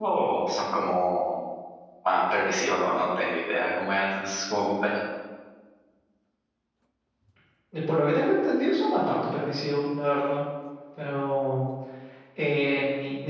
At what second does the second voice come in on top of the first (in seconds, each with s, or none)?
none